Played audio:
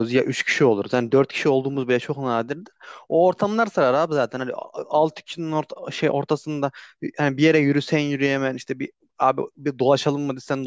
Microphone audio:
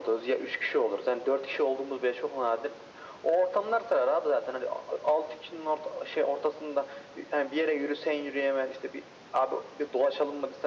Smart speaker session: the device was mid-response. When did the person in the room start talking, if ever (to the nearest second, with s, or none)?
none